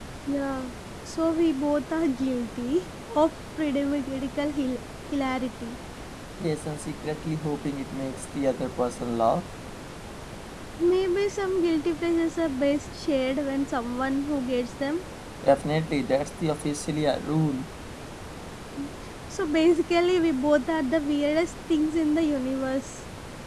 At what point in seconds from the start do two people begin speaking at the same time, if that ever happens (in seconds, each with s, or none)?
none